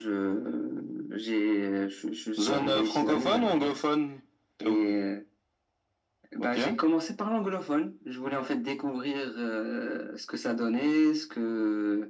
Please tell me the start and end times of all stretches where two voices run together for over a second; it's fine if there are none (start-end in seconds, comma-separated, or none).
2.4-3.8